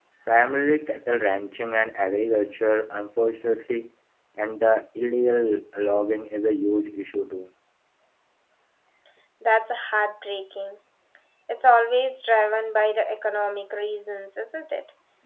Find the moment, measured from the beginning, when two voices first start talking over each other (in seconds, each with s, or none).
none